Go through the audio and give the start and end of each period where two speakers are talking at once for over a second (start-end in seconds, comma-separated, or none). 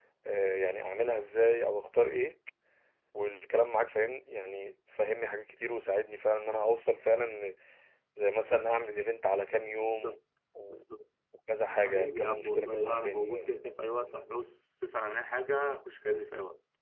11.8-13.6